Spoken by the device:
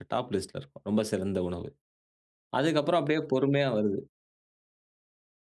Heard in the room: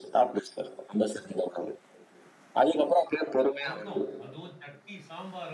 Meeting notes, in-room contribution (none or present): present